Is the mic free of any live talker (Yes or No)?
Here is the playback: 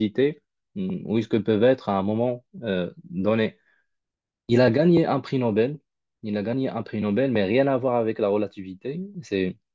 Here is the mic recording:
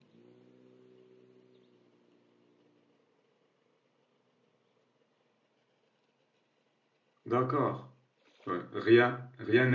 No